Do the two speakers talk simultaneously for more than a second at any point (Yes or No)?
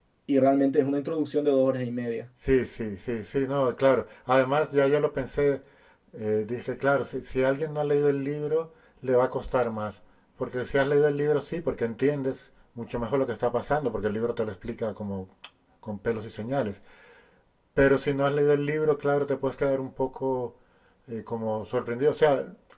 No